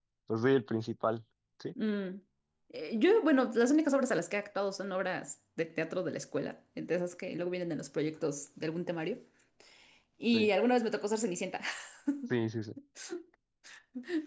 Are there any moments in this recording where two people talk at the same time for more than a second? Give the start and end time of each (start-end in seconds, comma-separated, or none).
none